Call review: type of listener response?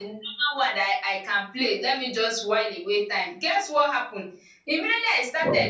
listening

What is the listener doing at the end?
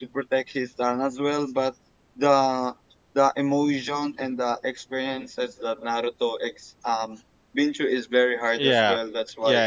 taking over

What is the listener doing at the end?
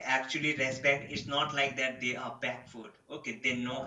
listening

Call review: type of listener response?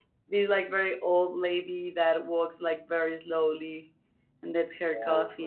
taking over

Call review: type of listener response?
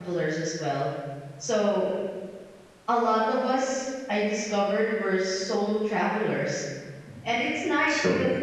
listening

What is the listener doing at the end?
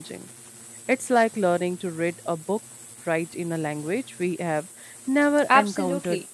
taking over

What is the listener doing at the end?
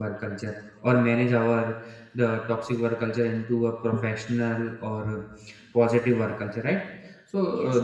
listening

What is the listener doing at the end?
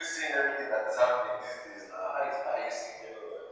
taking over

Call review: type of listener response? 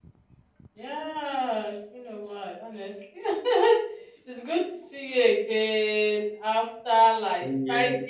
listening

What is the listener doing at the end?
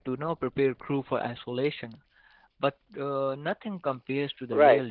taking over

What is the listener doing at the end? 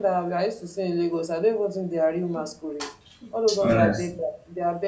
listening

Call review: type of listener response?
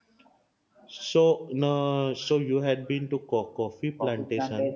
taking over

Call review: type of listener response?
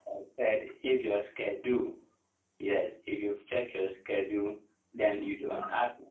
listening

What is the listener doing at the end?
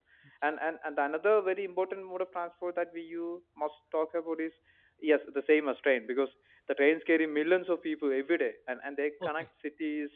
listening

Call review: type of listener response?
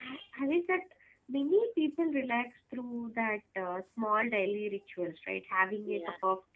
listening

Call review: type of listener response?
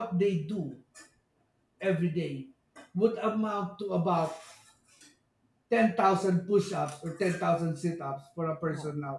listening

